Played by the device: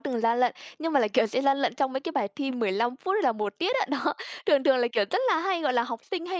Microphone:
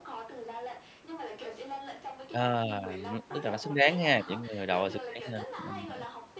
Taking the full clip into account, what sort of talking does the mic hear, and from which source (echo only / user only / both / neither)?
both